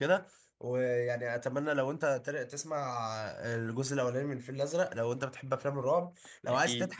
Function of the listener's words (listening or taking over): listening